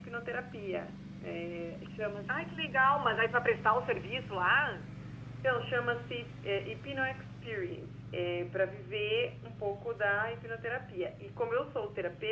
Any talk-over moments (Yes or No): No